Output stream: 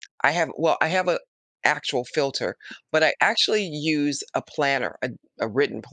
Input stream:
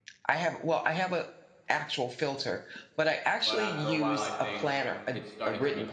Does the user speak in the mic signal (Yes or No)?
Yes